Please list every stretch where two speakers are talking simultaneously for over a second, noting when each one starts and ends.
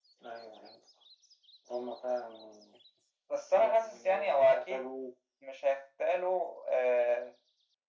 3.6-4.9

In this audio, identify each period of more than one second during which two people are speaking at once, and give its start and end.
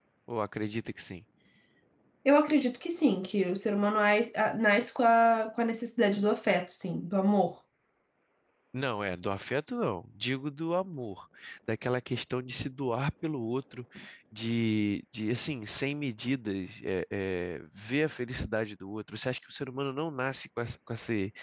none

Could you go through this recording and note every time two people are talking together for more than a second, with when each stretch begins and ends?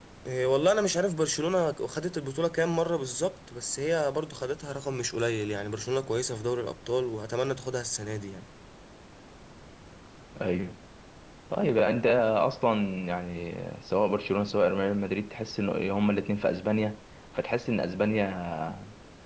none

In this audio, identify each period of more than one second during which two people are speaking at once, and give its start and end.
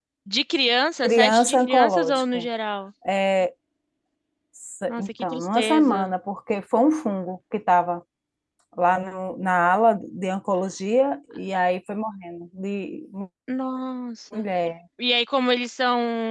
1.0-2.5, 4.9-6.1

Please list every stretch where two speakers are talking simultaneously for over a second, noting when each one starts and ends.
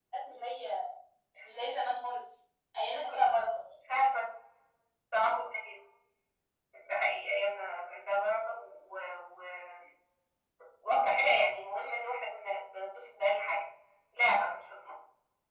none

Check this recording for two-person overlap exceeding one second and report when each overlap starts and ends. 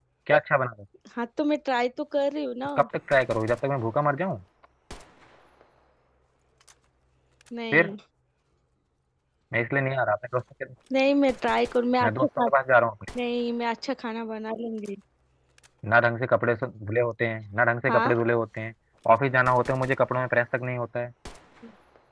none

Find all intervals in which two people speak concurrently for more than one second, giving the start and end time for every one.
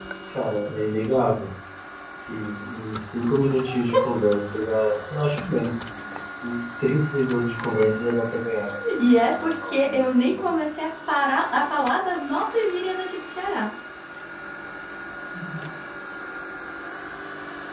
9.0-10.5

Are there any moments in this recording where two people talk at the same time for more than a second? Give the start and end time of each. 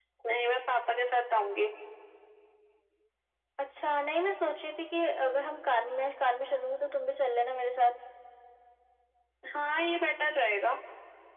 none

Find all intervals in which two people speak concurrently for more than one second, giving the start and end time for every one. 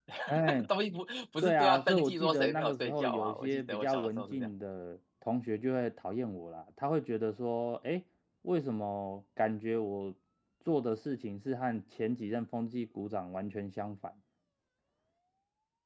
1.4-4.5

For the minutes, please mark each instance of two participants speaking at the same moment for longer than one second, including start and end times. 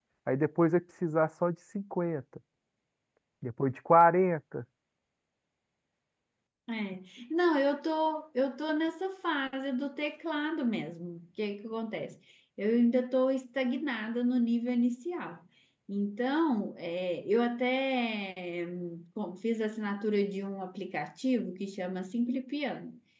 none

